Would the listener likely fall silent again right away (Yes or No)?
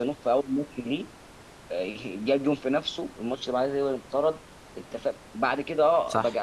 Yes